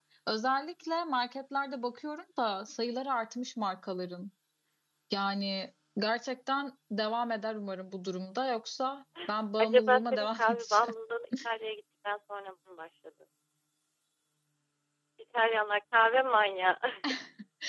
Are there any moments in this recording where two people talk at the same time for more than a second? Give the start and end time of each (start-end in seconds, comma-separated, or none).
9.6-10.9